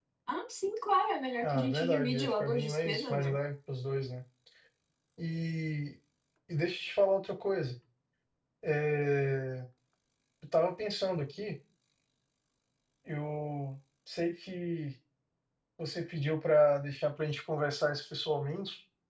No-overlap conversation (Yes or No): No